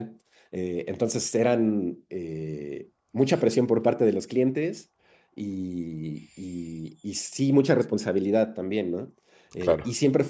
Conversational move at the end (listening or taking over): listening